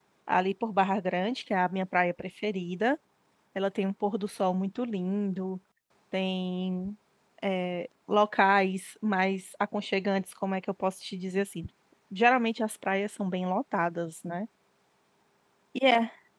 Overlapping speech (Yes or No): No